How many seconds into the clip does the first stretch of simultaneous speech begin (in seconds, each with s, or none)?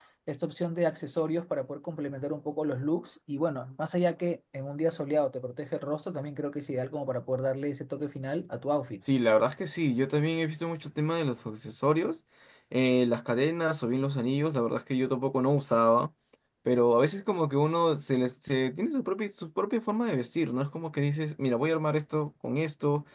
none